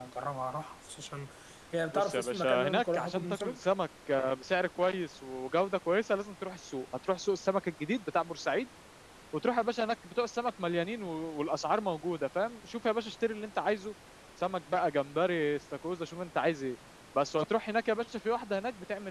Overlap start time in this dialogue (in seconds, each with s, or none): 1.9 s